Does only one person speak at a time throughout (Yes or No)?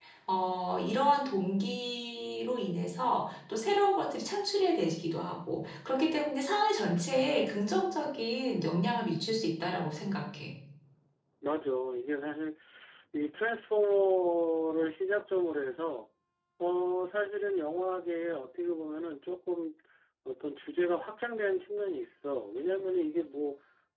Yes